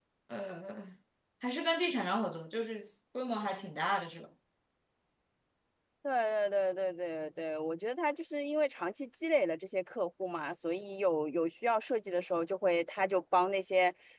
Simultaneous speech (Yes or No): No